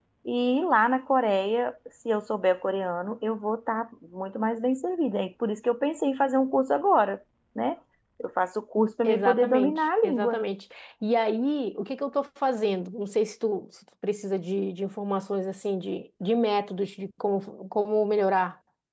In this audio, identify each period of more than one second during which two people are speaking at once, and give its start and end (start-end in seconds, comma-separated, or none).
9.1-10.4